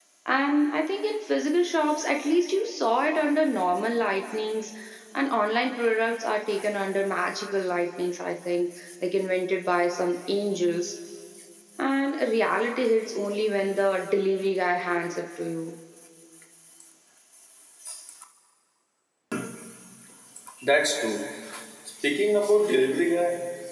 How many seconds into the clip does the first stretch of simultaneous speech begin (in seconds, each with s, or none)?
none